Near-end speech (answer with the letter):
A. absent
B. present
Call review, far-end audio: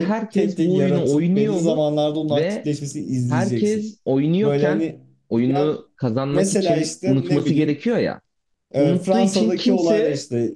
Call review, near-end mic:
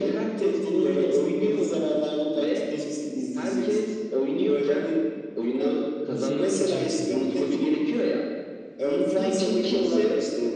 B